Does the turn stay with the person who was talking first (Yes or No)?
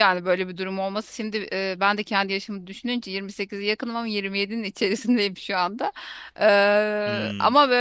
Yes